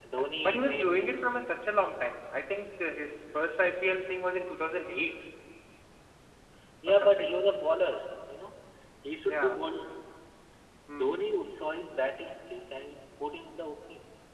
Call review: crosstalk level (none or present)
present